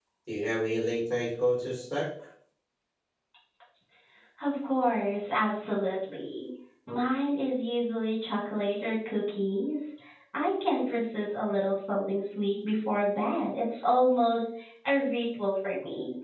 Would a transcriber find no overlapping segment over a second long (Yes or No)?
Yes